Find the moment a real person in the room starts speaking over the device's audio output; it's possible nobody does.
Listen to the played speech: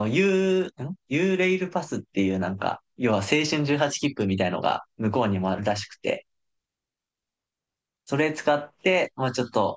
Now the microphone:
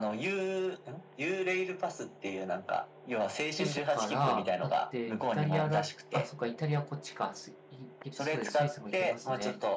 4 s

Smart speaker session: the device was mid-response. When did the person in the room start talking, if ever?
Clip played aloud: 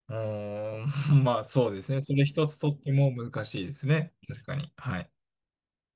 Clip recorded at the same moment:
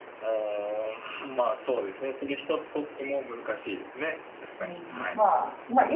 5 s

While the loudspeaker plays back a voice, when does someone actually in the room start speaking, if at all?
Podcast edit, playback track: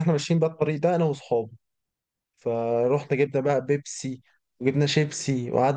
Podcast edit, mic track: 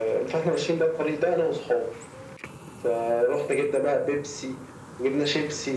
none

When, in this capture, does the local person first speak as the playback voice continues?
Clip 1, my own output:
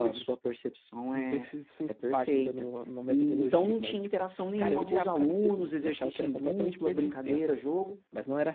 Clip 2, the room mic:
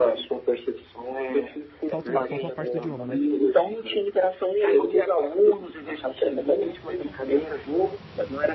2 s

